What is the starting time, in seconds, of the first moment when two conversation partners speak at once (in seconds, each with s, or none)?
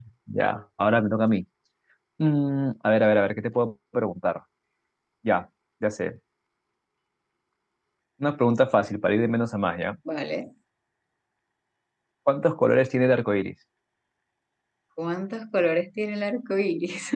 none